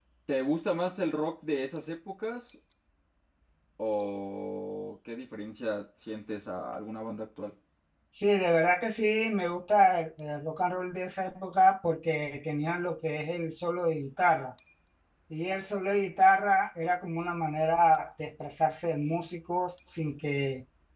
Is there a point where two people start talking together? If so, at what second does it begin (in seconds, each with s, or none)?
none